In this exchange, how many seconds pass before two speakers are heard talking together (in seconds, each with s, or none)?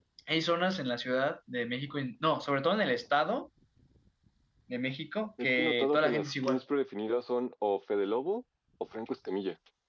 5.4 s